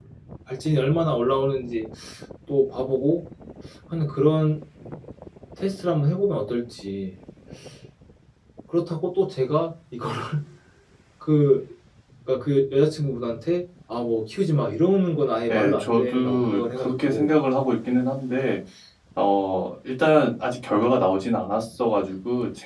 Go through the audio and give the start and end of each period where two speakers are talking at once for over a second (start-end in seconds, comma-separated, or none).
15.5-17.3